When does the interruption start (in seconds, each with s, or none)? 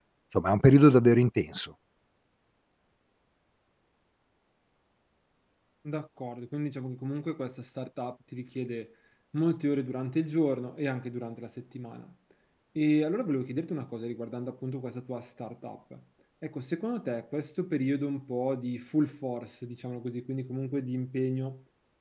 none